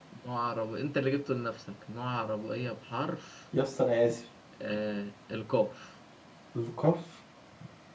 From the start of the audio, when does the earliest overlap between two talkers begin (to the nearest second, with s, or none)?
none